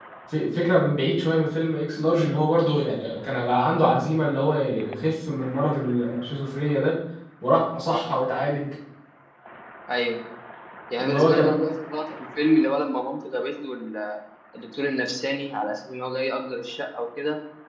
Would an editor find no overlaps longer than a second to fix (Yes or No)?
Yes